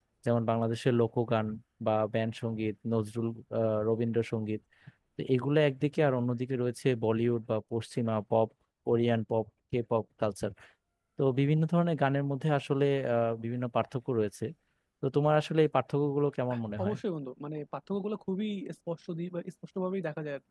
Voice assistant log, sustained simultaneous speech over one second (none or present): none